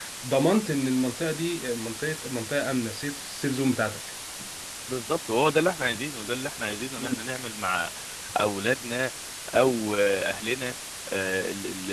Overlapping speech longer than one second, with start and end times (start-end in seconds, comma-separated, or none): none